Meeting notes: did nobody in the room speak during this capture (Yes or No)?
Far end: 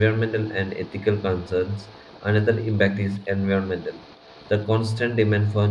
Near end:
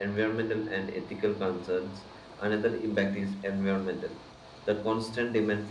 Yes